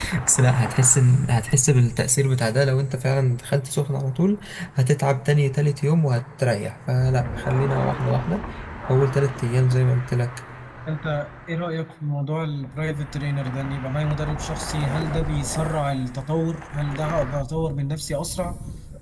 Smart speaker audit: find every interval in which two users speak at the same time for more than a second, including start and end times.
none

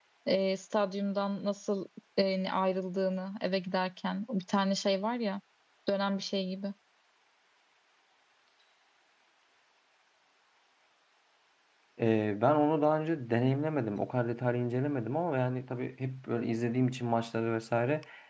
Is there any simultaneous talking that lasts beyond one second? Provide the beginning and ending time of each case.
none

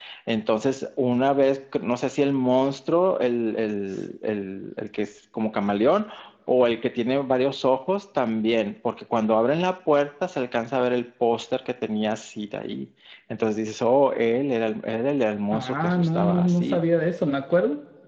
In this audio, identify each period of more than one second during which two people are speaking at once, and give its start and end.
15.5-16.8

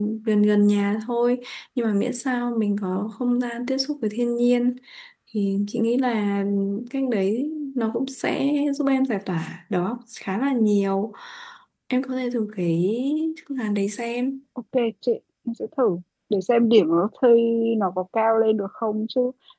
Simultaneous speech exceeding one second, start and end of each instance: none

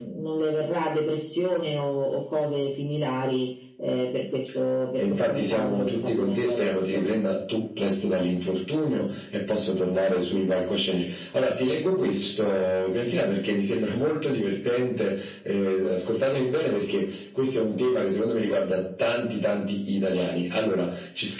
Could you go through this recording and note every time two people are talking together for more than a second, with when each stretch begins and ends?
5.0-7.0

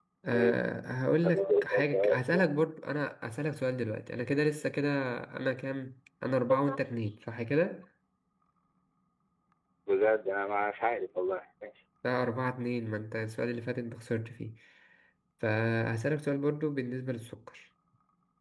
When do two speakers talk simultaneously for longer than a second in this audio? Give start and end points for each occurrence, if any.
1.2-2.5

